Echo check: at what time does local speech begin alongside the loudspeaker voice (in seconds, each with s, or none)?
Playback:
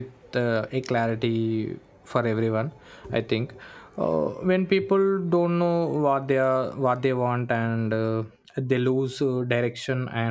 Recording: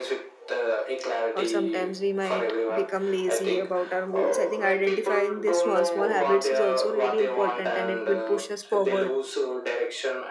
1.3 s